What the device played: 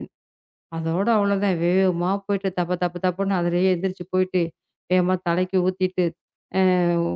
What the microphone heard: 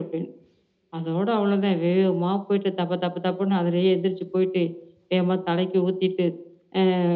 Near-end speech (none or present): none